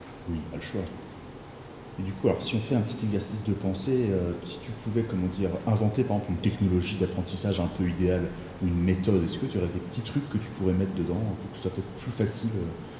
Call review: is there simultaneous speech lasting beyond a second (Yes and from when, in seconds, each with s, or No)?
No